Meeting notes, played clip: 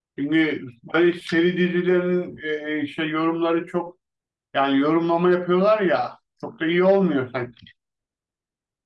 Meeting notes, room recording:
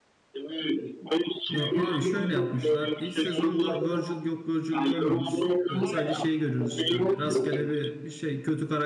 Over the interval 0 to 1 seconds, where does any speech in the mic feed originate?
echo only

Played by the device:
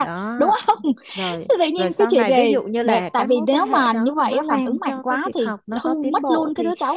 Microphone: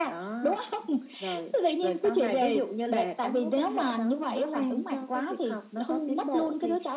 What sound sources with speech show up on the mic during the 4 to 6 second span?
echo only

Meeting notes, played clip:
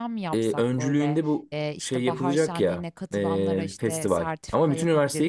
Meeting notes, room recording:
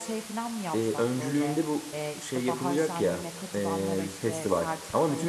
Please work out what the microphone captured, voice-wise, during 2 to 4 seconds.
echo only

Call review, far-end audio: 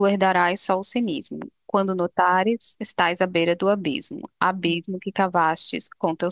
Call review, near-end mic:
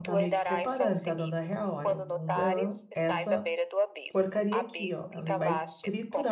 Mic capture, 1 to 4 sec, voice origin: both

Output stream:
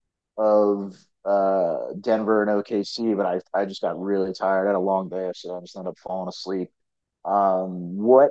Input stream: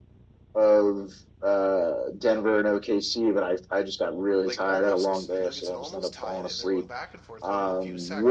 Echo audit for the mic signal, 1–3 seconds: echo only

